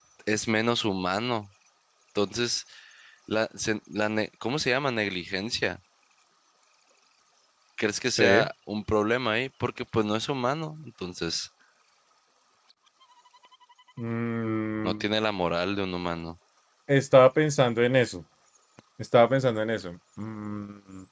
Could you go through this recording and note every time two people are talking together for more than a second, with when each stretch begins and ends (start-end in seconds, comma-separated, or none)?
none